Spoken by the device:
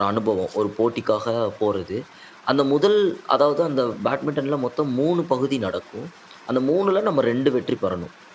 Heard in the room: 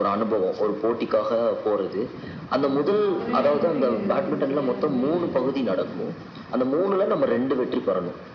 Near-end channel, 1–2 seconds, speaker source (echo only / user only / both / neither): echo only